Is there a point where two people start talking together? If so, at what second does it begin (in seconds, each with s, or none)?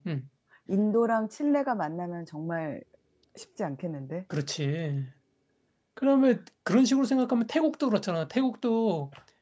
none